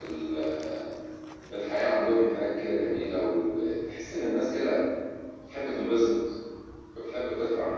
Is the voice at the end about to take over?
Yes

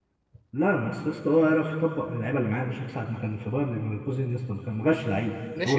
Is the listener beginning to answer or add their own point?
Yes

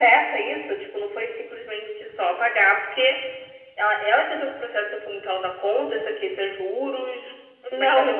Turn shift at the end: Yes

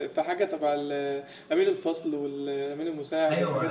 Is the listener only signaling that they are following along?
No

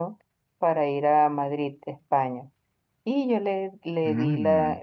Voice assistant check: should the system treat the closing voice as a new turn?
No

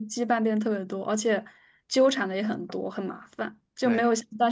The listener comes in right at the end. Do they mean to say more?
No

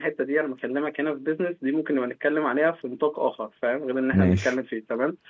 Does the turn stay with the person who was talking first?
Yes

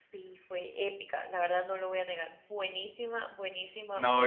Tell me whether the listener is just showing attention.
No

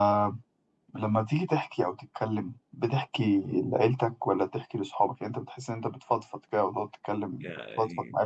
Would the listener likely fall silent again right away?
No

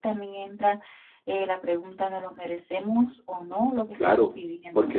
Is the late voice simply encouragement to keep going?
No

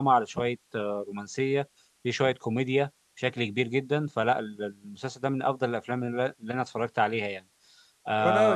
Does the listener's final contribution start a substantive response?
Yes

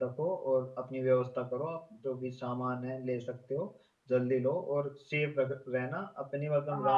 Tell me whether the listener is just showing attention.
No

